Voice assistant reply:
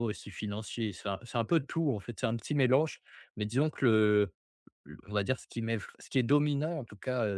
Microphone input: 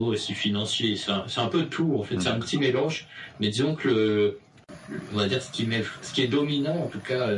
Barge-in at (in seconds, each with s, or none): 2.1 s